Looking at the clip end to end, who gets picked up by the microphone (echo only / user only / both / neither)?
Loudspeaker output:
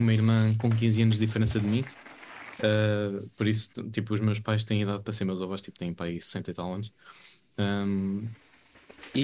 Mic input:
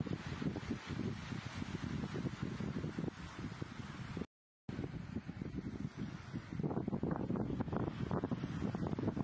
neither